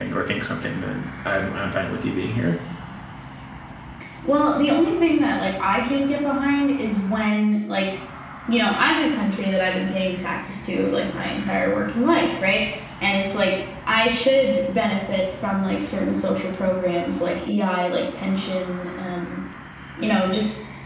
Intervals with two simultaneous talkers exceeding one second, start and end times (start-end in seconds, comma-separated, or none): none